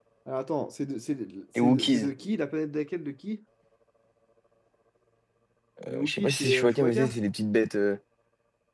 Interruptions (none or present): present